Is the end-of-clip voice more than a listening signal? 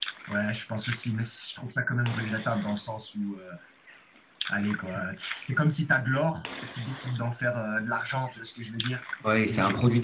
Yes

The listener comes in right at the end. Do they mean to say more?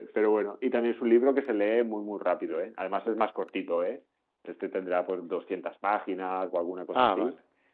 No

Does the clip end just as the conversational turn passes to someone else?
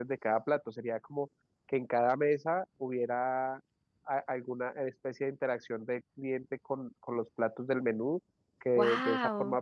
No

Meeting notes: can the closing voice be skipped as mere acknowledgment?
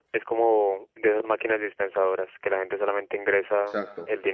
Yes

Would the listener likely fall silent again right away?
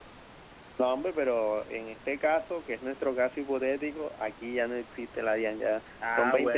No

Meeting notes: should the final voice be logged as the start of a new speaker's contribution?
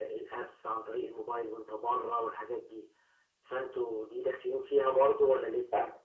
Yes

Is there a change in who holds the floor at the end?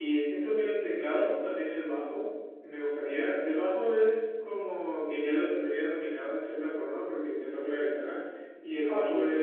No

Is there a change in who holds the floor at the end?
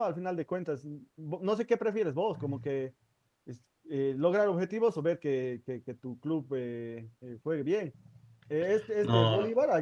No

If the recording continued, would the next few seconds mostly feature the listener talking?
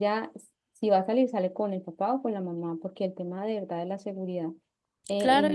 Yes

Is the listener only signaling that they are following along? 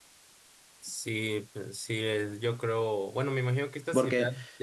Yes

